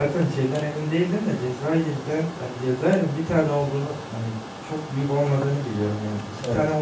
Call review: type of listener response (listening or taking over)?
listening